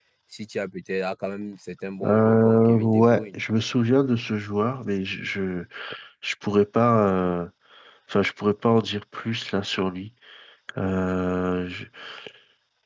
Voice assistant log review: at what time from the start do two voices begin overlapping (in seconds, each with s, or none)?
2.0 s